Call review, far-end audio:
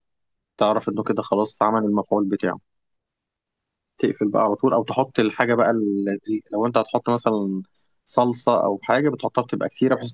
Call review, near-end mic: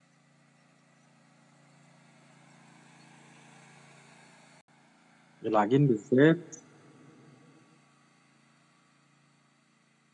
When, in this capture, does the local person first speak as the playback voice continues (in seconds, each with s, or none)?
5.4 s